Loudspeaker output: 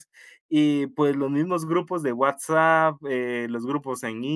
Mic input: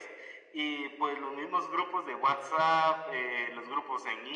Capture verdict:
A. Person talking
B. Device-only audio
B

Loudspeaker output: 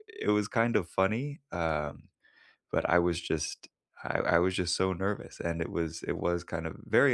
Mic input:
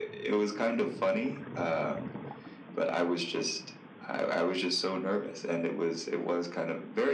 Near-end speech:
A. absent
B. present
A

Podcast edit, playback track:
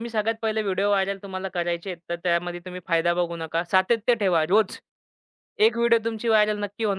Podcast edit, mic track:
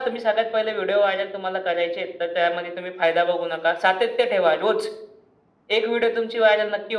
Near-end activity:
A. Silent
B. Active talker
A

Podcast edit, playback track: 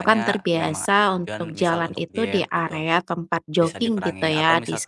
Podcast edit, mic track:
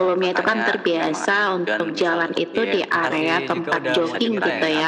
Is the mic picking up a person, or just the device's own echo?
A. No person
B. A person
B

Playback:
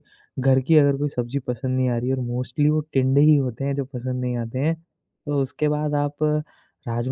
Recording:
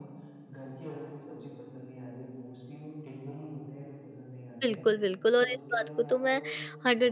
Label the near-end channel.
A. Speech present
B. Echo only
A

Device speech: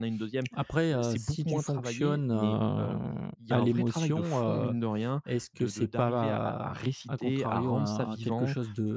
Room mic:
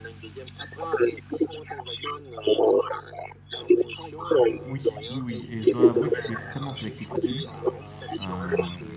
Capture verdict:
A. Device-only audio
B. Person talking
B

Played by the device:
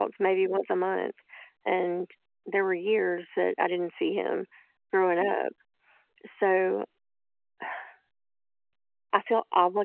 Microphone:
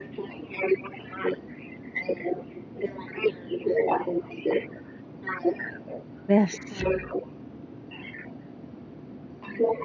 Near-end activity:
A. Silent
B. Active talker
B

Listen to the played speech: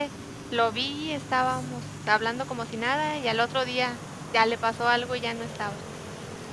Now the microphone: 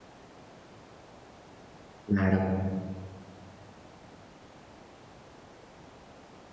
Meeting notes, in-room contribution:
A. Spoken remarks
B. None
A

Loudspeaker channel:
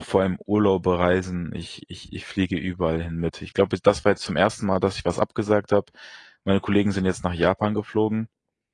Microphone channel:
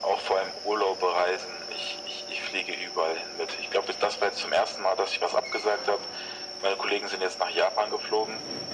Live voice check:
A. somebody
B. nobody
B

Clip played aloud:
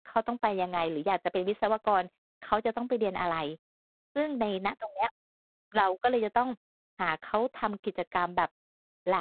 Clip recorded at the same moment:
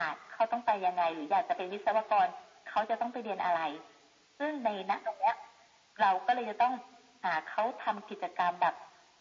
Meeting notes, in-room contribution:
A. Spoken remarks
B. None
B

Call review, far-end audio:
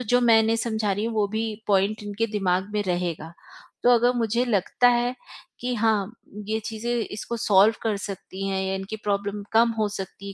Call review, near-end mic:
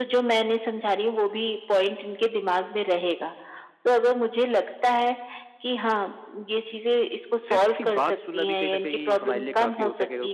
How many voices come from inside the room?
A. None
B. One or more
B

